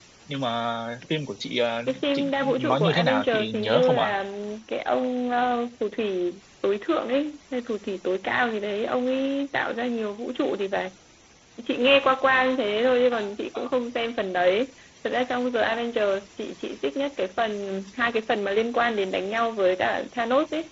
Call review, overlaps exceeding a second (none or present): present